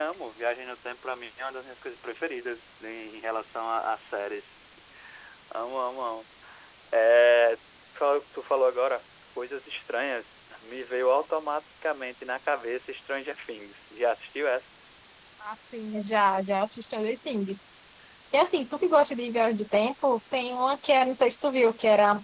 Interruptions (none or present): none